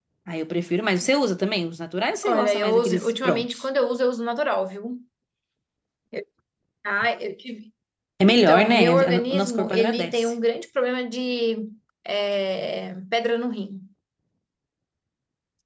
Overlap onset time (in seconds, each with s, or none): 2.2 s